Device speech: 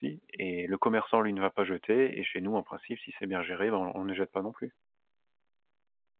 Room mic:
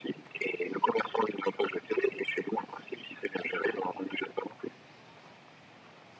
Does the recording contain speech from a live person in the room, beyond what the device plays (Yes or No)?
No